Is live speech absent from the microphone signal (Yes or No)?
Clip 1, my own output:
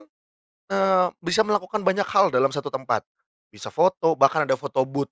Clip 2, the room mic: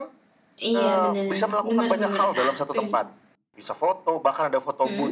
No